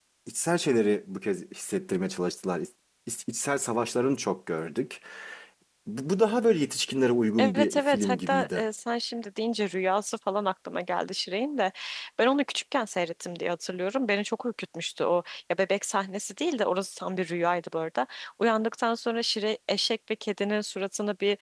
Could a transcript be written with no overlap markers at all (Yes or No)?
No